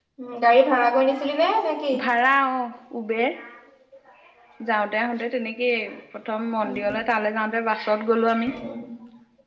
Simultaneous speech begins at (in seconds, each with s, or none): none